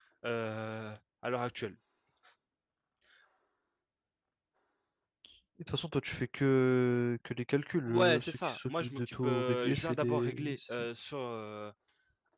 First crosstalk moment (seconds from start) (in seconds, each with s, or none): 7.9 s